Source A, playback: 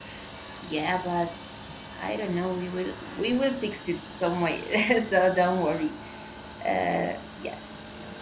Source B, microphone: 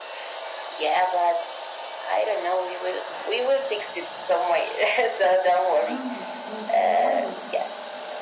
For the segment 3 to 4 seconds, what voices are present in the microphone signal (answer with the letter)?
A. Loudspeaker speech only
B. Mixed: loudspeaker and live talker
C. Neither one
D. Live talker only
A